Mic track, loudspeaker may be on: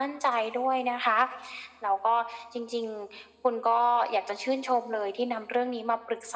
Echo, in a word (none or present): present